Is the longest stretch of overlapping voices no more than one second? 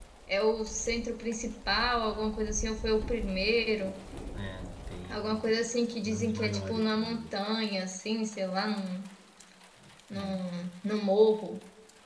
No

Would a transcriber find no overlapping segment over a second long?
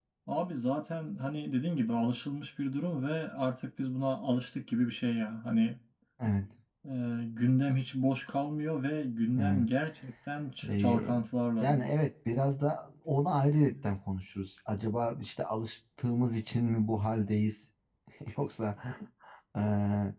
Yes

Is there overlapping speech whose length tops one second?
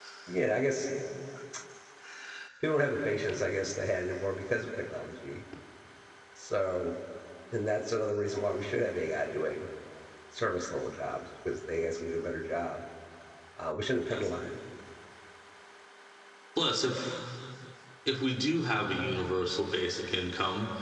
No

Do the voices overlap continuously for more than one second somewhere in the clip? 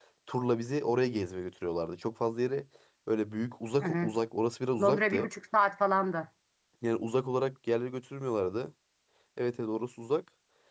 No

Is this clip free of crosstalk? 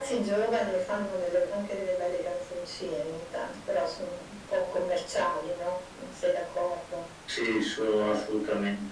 Yes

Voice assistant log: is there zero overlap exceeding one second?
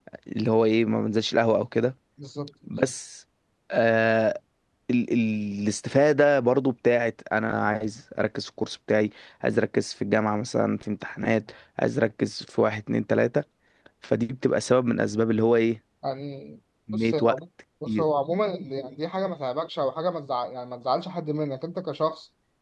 Yes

